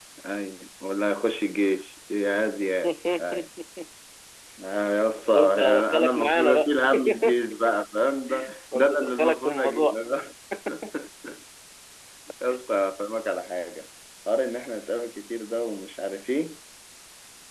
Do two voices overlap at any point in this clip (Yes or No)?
Yes